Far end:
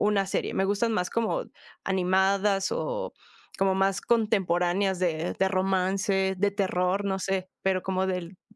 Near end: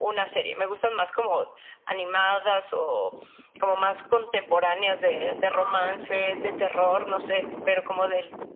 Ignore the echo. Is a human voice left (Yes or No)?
No